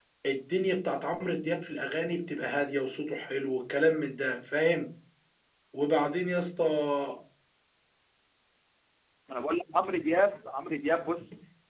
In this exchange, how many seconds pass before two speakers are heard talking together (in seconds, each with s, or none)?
none